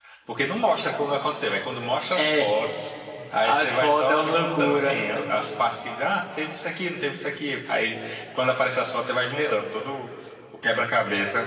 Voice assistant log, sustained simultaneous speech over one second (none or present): present